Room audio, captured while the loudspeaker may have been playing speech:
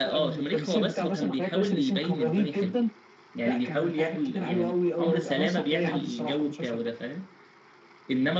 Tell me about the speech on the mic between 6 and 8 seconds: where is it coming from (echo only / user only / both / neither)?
both